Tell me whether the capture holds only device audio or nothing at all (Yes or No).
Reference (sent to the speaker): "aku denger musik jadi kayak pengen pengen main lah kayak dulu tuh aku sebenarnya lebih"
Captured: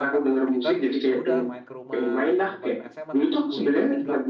No